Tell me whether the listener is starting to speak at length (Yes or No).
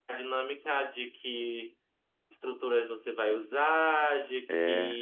No